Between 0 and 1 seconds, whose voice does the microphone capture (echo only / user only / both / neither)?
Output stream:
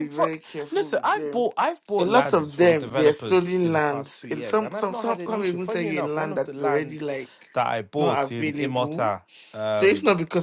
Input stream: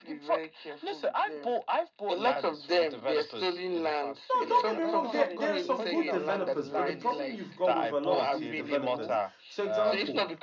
echo only